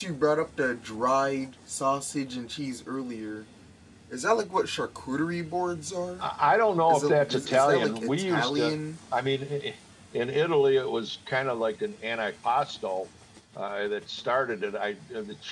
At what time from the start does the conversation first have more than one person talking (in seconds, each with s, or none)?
6.9 s